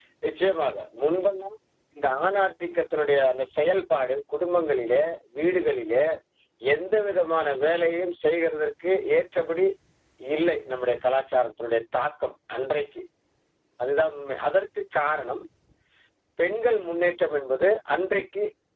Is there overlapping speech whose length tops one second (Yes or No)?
No